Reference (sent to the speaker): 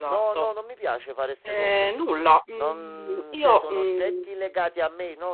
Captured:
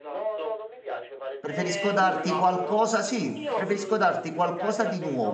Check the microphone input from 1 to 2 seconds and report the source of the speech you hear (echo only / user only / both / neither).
both